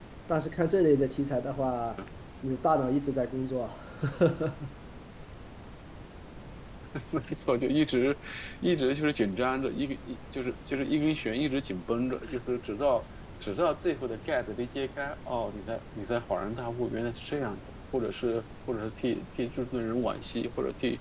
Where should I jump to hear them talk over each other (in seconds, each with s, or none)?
none